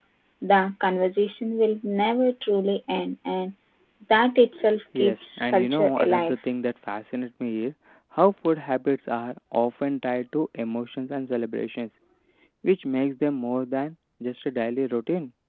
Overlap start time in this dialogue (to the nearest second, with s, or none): 5 s